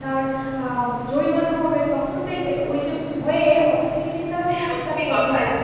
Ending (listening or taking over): taking over